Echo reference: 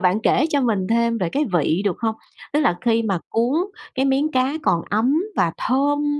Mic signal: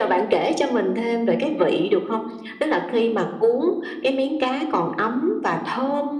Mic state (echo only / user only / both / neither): echo only